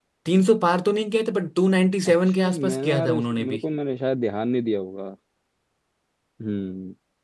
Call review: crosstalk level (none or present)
present